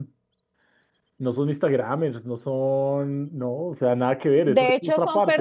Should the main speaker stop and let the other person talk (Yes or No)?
Yes